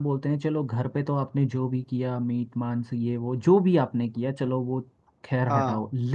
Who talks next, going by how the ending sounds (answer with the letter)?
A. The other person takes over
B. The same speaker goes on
B